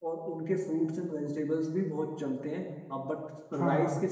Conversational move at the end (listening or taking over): listening